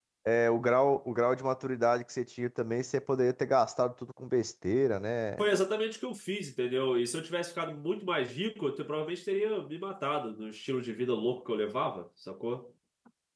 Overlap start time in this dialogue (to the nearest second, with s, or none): none